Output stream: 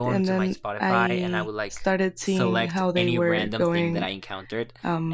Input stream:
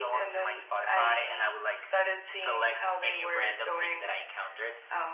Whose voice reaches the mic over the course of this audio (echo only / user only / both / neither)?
echo only